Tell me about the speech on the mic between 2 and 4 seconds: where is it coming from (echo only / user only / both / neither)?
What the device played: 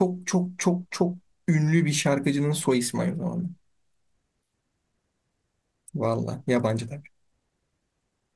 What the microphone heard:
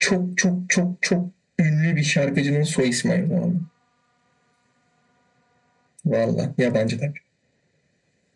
echo only